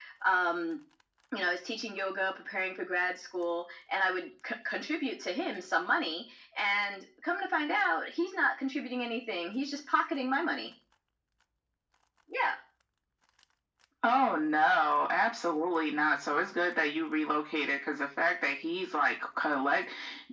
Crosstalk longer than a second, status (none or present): none